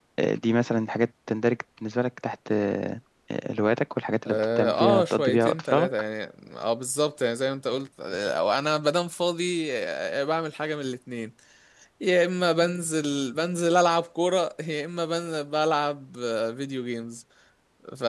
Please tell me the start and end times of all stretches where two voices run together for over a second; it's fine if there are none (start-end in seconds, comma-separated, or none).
4.3-5.9